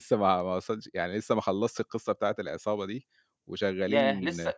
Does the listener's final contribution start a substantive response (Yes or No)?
Yes